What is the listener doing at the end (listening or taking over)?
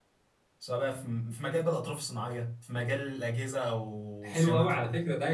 taking over